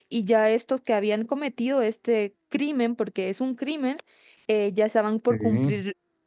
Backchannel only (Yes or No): Yes